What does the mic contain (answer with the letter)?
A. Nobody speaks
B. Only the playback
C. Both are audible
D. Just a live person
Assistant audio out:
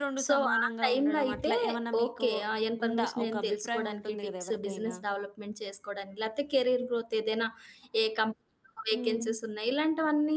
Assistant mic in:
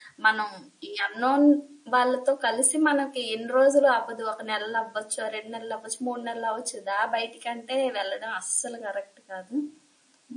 D